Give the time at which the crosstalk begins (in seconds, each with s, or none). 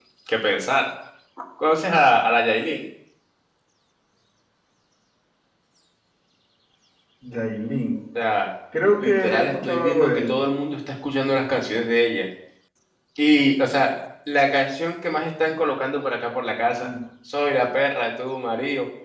9.0 s